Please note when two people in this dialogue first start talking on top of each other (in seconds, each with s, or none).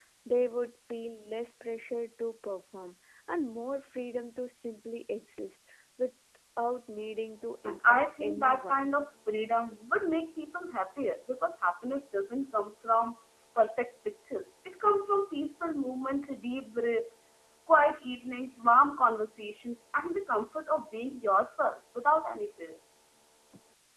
7.6 s